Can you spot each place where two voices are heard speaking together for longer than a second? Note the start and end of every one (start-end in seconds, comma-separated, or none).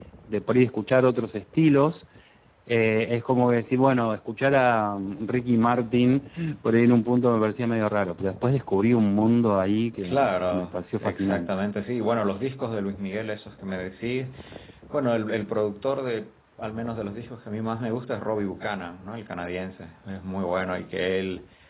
10.0-11.5